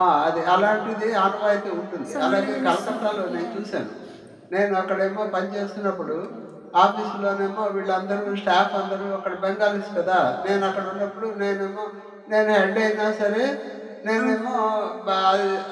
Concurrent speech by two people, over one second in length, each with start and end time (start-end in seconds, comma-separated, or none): 2.1-3.7